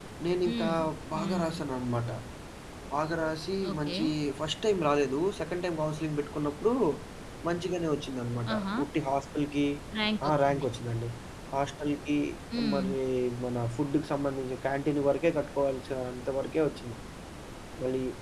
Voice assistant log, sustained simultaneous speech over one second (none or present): none